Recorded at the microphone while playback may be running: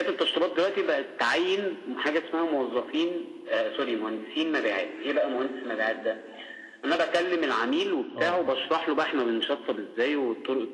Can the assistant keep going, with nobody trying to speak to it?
No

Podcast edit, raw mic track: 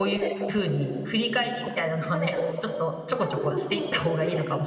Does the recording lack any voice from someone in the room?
No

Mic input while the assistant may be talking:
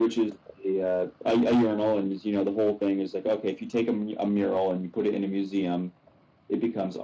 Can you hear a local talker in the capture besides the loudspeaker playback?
No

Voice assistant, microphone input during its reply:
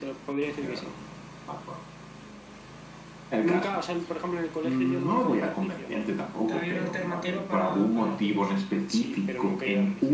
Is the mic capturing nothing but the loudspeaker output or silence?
No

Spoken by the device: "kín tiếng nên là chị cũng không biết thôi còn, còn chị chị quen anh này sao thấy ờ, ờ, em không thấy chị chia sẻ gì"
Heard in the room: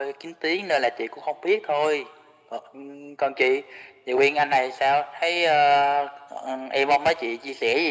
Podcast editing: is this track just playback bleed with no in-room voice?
Yes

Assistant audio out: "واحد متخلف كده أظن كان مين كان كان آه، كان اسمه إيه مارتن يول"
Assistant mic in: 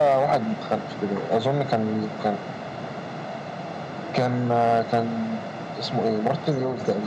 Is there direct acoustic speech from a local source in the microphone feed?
No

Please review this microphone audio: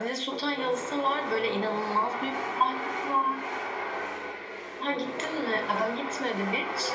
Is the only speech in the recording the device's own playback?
No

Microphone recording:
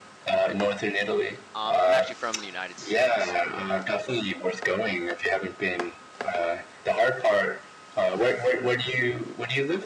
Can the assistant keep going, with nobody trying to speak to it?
No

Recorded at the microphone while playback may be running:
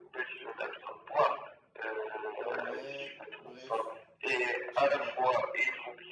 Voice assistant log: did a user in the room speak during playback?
Yes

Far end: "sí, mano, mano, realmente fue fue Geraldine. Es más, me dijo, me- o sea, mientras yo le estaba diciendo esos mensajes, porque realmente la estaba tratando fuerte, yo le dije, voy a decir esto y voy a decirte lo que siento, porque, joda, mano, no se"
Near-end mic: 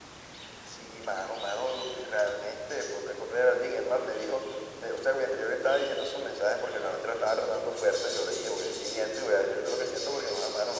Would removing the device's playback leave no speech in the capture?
Yes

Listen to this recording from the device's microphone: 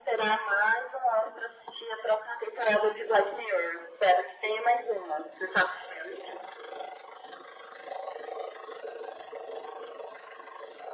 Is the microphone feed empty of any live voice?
Yes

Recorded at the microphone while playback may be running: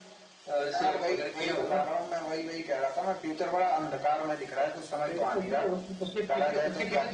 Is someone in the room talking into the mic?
No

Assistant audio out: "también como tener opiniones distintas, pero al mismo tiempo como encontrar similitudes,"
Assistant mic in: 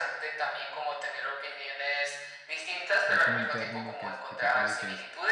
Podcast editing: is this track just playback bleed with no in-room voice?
No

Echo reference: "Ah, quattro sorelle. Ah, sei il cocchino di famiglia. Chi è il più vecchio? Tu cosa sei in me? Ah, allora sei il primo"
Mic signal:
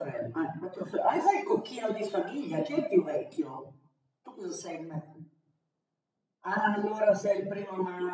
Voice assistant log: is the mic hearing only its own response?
Yes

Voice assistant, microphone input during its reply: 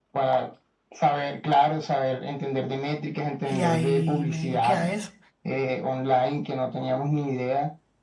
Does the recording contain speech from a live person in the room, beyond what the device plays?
Yes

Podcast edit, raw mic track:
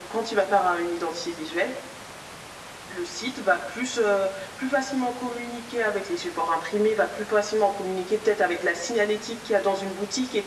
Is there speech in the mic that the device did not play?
No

